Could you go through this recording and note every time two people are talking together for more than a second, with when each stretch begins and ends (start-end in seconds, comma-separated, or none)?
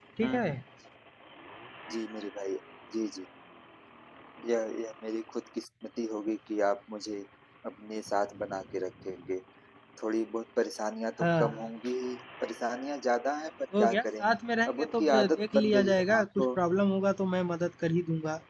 14.7-16.5